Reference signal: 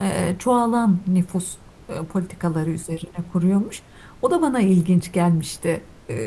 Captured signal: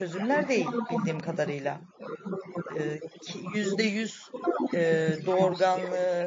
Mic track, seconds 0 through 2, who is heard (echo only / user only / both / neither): both